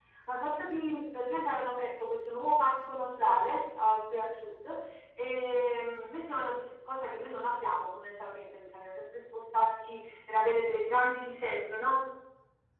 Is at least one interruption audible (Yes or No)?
No